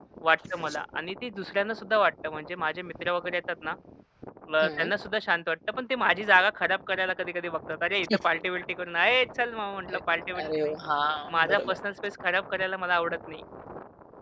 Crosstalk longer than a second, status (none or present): none